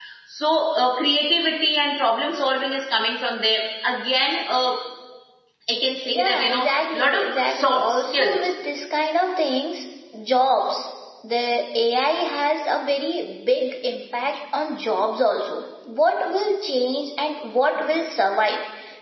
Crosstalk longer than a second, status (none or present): present